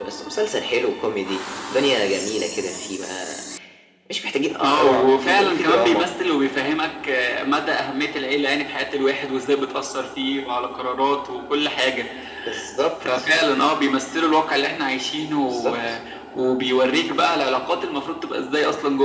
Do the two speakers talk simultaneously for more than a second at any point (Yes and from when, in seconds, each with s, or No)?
Yes, from 4.6 s